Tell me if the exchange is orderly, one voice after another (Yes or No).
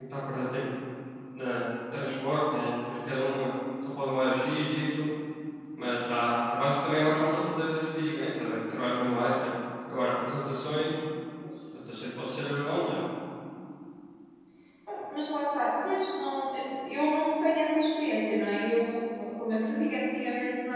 Yes